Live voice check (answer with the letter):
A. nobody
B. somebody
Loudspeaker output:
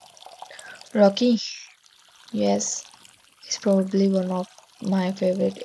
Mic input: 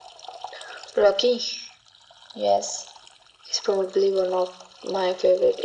A